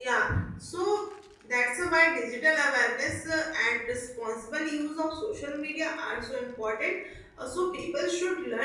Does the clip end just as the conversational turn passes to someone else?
No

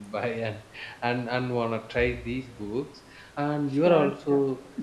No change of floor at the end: Yes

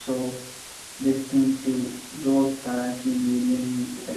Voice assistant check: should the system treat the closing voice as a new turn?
Yes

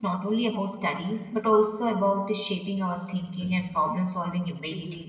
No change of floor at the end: No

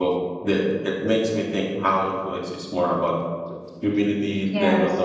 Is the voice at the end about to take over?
Yes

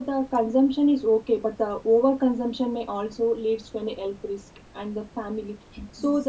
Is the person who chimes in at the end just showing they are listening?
Yes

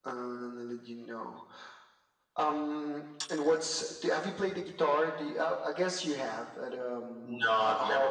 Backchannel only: No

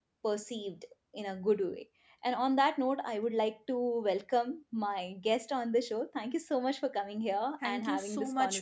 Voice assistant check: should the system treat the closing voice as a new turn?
Yes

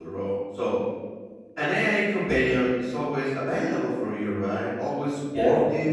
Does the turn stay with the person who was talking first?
Yes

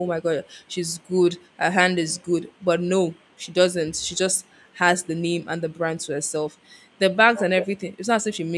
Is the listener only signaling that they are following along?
Yes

